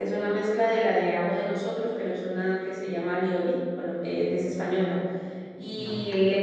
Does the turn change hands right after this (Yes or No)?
No